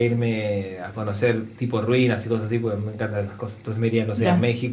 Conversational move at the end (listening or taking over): listening